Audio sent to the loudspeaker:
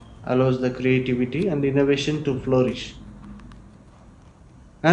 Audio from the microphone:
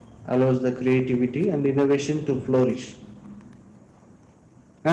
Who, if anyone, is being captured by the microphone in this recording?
echo only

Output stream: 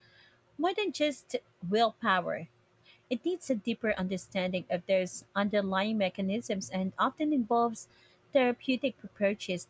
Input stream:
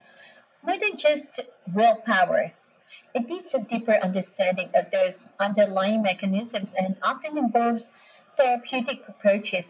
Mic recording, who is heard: echo only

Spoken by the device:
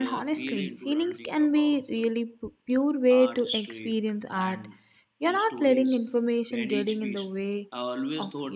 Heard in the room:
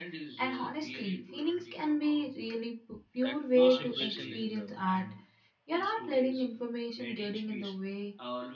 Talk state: both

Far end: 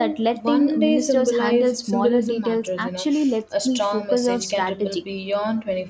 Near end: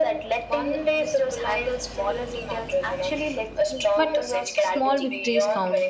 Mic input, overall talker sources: both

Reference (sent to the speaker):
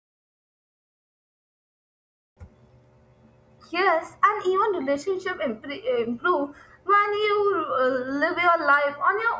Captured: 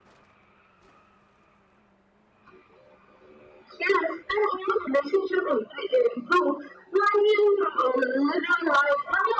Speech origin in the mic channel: echo only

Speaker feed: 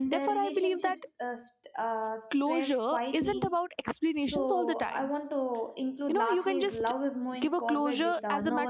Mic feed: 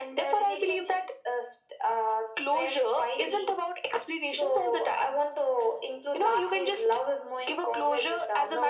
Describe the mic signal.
echo only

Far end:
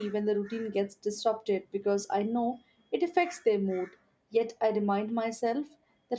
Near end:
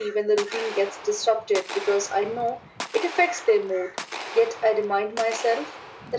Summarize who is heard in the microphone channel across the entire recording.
echo only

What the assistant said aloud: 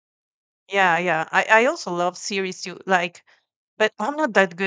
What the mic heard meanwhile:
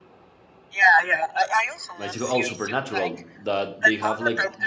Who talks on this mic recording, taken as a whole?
both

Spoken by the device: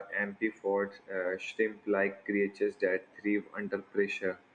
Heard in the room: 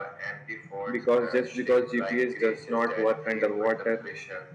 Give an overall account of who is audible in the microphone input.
both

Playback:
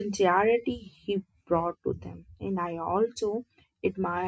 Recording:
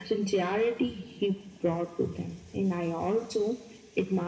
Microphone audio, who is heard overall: echo only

